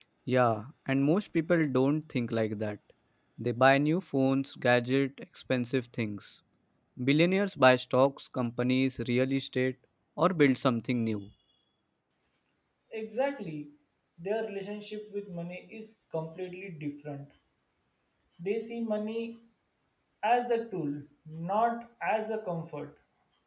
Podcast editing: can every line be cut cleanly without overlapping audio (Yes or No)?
Yes